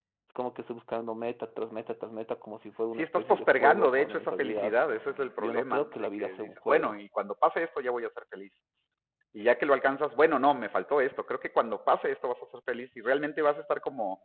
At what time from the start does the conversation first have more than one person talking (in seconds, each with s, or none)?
3.0 s